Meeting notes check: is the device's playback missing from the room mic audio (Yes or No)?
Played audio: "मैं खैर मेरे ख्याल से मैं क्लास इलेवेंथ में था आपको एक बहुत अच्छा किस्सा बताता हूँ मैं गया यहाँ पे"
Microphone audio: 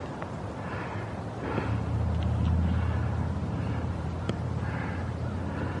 Yes